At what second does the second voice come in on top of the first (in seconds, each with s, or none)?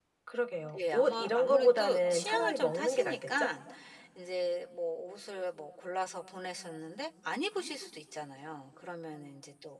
0.9 s